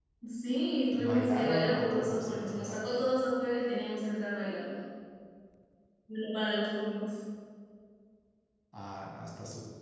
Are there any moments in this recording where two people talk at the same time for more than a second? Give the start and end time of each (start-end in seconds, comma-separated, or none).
0.9-2.9